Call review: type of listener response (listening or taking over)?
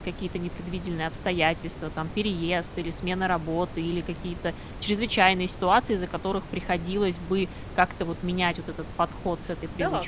taking over